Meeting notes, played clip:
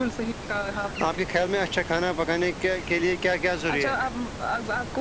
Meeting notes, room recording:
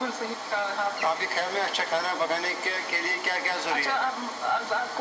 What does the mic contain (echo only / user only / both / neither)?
echo only